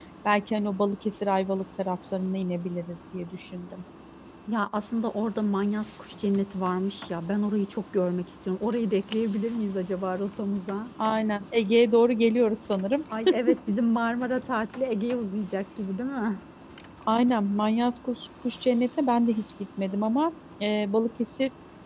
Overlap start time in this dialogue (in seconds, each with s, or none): none